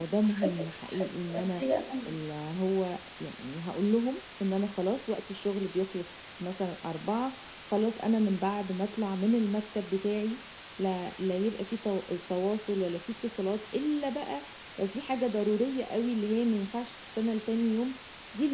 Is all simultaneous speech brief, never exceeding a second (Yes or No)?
No